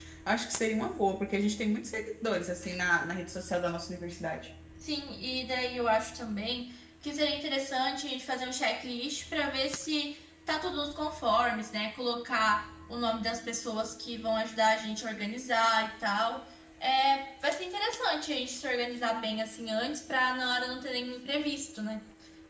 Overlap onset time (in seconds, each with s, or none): none